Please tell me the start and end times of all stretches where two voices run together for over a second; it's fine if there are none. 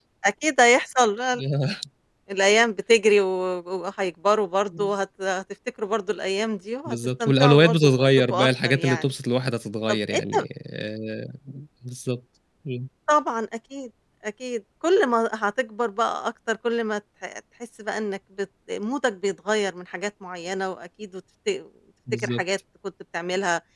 6.9-9.1

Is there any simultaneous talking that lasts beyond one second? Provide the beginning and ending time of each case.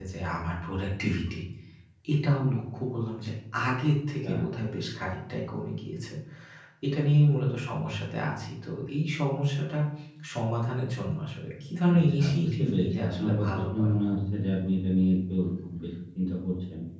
11.9-13.9

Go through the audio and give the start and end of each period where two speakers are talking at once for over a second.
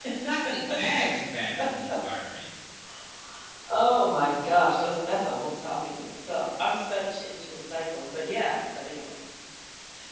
none

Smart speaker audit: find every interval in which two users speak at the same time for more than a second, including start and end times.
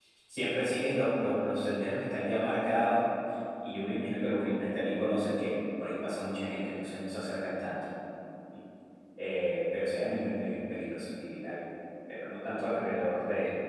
none

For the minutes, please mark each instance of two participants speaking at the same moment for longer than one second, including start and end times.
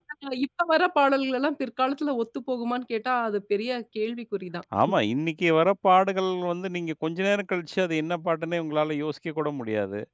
none

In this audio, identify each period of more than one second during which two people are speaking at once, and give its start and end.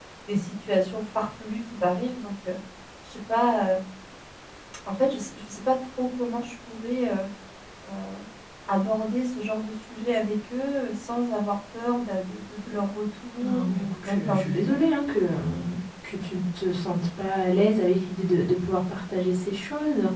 13.4-14.8

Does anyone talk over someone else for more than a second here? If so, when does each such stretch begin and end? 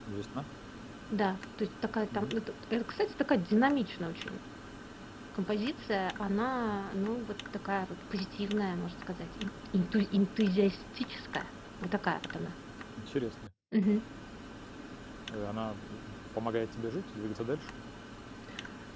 none

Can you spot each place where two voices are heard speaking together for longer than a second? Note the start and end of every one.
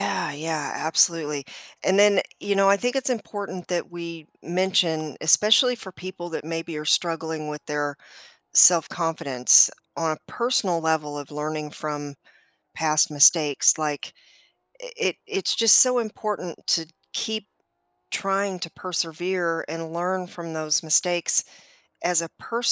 none

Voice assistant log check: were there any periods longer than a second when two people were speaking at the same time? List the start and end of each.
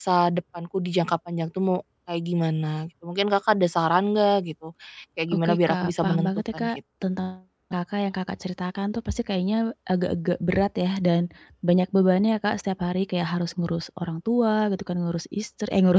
5.3-6.7

